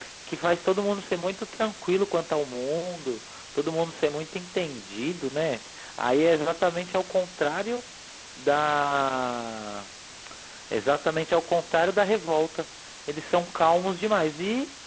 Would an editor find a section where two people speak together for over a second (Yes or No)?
No